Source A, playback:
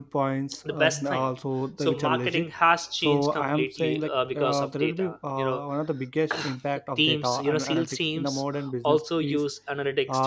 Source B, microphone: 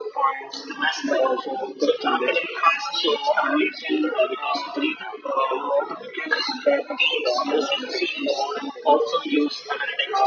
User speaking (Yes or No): No